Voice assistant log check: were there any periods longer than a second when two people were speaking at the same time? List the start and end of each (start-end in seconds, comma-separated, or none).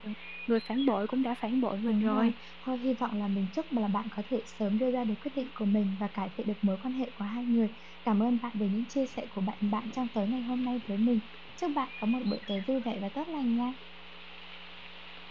none